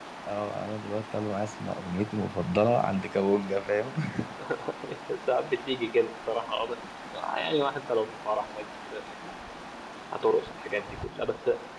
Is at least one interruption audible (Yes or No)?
No